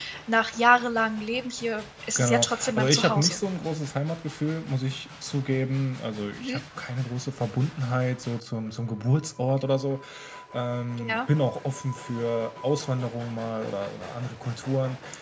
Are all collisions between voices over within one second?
No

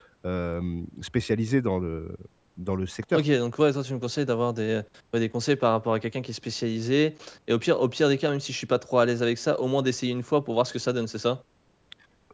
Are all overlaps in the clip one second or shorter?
Yes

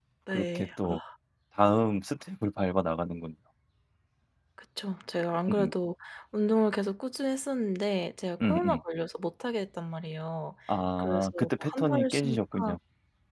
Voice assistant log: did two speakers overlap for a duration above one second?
Yes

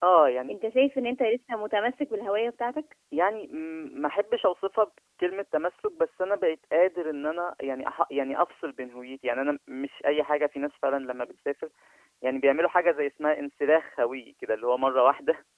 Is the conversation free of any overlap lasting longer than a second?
Yes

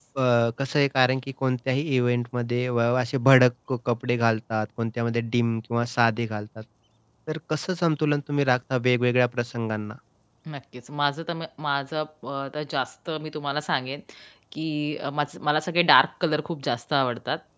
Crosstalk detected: No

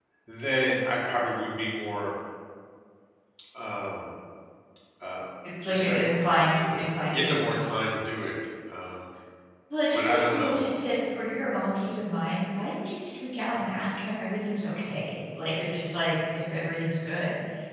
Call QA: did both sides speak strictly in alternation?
No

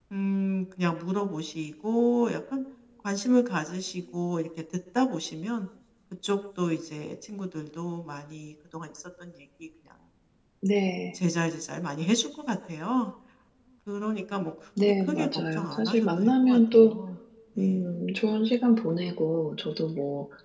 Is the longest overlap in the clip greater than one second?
Yes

